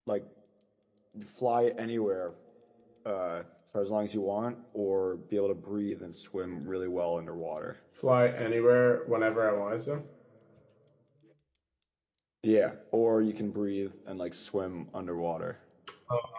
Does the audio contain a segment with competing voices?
No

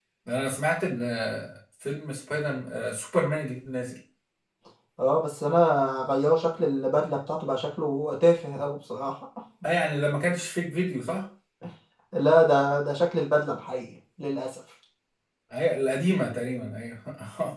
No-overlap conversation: Yes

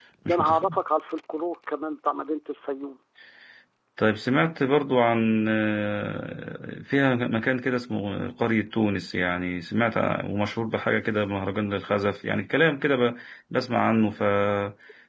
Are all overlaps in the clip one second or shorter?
Yes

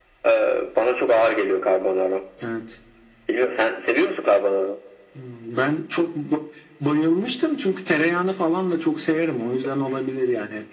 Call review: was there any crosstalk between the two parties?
No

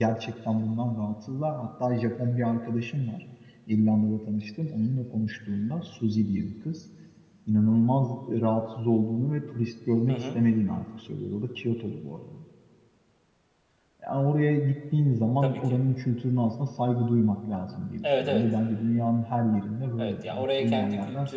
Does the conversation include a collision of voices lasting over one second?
Yes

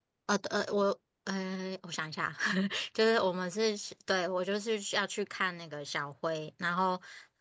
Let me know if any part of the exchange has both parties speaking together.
No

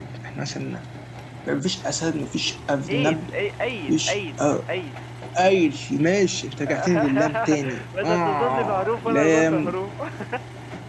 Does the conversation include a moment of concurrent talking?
Yes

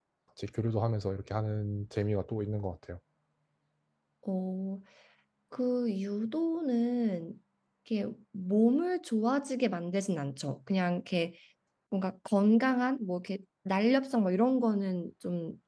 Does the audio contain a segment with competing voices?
No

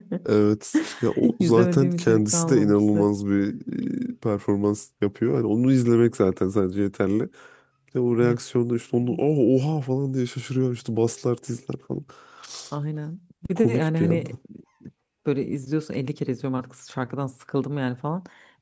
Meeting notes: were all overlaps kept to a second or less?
No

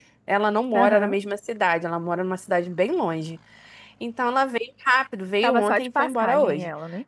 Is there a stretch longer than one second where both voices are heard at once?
Yes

